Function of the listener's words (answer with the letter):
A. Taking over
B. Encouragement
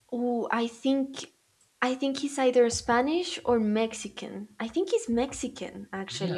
A